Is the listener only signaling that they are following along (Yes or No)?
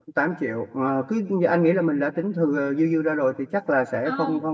Yes